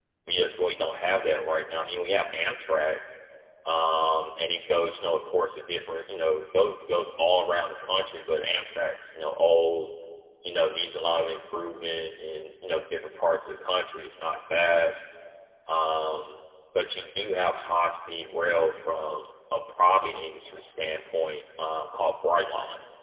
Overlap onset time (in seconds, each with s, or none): none